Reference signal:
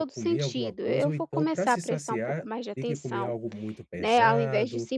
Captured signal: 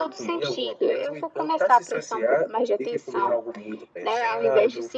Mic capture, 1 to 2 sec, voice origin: echo only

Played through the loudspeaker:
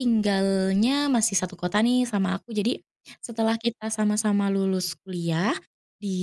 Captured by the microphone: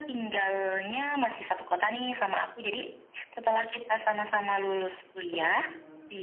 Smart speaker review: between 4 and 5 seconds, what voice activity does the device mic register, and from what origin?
echo only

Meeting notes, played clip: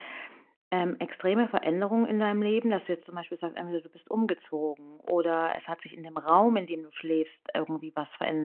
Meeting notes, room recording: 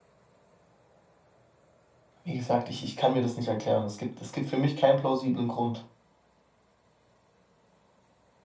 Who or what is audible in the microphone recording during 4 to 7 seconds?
user only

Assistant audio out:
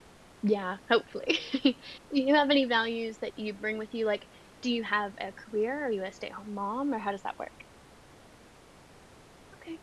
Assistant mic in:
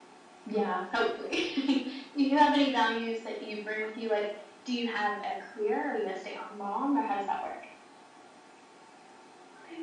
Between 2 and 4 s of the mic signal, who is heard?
echo only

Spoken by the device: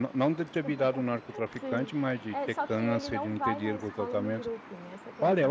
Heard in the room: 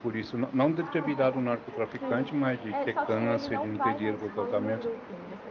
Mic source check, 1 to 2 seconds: both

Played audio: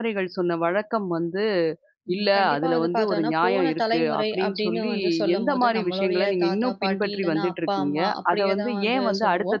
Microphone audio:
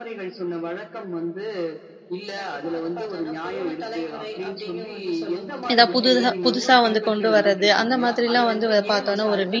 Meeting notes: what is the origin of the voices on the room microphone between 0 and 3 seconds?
echo only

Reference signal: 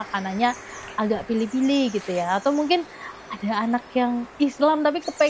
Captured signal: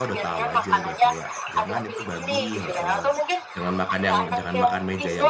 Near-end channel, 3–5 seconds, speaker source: both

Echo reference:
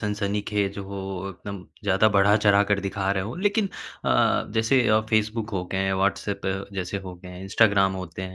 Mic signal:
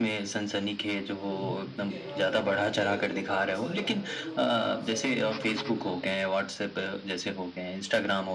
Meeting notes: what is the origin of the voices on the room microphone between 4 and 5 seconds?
both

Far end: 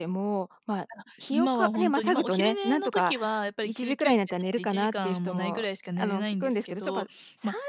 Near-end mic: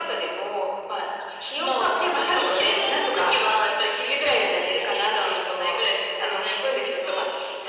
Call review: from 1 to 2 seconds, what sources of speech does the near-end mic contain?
echo only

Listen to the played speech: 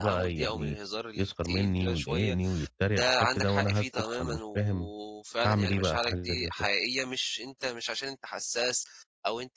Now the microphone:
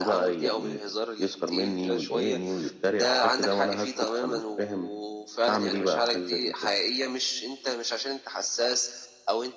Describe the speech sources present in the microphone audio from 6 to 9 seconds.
echo only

